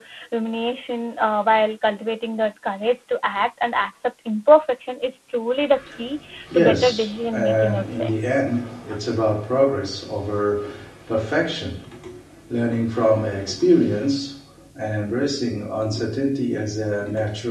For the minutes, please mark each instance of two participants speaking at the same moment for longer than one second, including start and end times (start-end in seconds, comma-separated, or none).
6.5-8.1